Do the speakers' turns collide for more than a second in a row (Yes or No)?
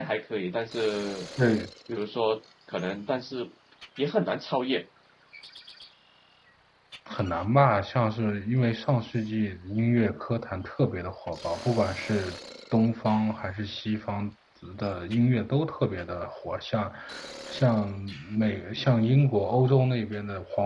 No